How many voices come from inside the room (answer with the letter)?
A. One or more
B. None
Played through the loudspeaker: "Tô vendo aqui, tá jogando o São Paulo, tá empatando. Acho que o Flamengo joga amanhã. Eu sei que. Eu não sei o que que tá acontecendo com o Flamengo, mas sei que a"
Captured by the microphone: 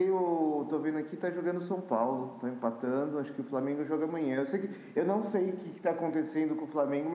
B